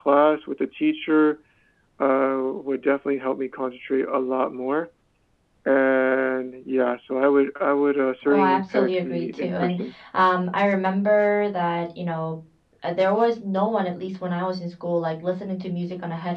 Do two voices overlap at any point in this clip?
Yes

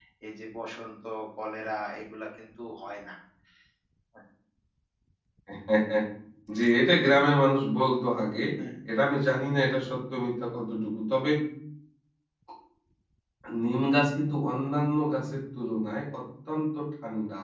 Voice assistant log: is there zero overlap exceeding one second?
Yes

